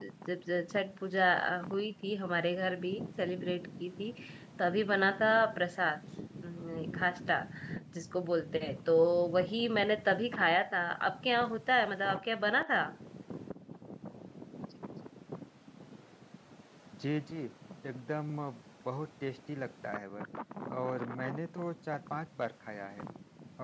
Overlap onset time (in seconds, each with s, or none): none